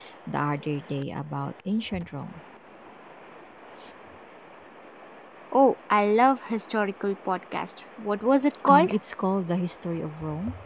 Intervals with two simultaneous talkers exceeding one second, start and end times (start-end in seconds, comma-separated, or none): none